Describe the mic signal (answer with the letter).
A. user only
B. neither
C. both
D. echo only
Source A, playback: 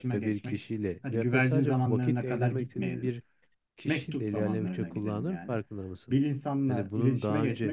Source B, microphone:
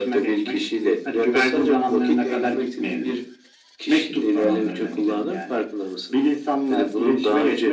D